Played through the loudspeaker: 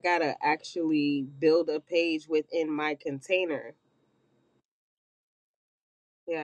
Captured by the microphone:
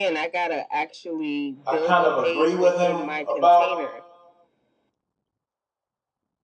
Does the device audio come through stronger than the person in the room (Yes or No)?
No